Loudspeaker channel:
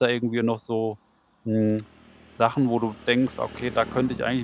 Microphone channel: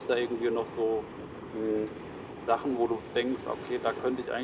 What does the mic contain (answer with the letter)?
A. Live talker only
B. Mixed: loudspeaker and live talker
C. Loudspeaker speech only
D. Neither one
C